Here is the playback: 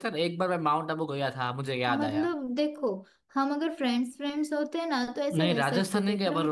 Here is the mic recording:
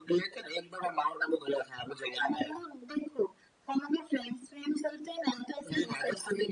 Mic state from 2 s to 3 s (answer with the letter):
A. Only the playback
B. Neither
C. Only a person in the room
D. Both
A